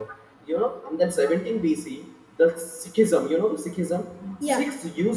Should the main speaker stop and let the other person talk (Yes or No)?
No